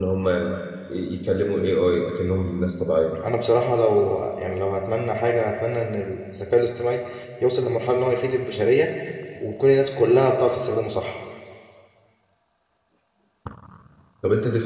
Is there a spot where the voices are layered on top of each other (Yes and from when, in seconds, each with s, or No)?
No